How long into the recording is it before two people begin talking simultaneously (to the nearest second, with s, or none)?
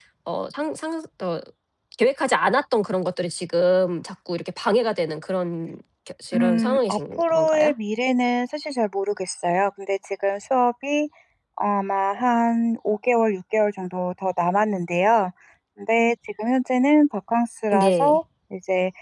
6 s